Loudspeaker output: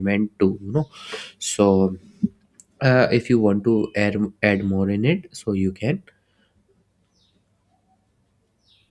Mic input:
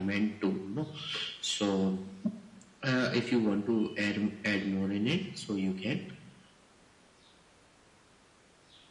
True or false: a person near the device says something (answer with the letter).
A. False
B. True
A